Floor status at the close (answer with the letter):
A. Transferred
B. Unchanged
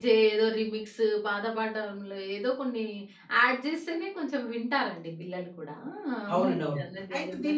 A